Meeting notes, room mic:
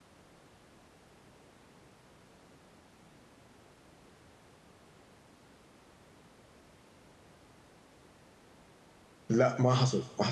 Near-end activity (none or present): present